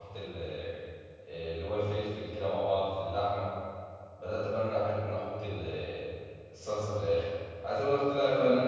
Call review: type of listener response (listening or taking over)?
listening